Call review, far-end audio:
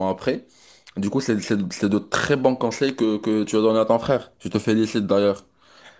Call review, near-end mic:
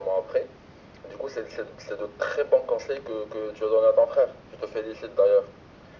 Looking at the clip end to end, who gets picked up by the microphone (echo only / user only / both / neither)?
echo only